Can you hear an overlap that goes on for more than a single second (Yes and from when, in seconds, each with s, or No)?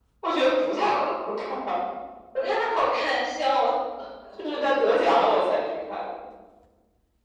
No